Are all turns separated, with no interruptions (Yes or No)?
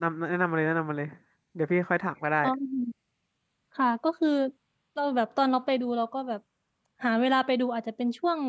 Yes